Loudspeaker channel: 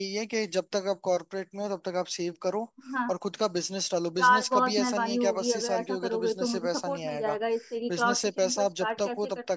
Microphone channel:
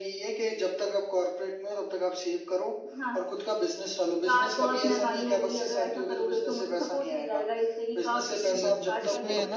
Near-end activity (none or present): present